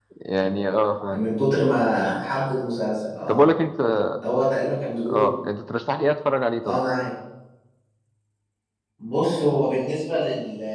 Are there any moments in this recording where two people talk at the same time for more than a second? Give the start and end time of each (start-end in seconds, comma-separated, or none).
none